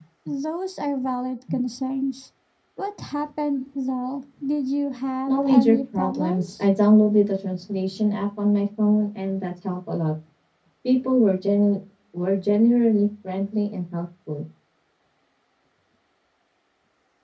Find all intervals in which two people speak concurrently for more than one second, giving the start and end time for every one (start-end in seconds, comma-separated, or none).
5.3-6.6